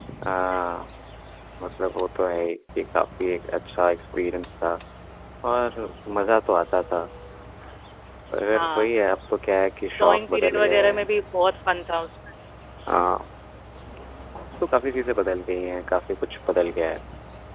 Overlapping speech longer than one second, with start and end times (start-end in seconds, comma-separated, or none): 9.8-11.1